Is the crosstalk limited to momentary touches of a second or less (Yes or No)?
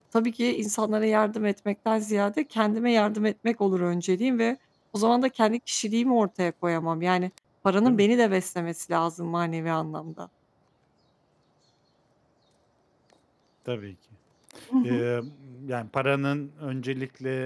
Yes